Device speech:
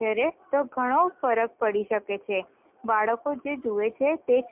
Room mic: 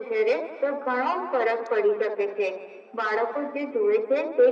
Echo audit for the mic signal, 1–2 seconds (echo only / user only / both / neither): echo only